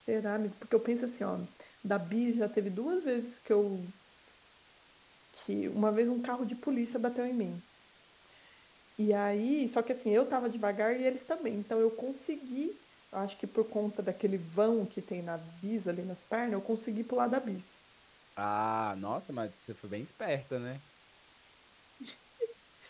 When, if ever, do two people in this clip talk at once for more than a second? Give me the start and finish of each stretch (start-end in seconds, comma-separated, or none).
none